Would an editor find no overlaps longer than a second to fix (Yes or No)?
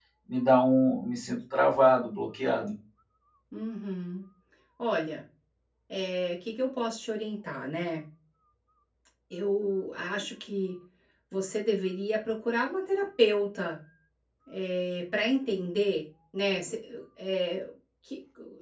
Yes